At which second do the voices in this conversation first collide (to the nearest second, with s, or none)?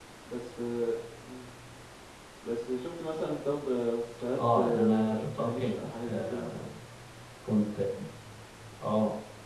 4 s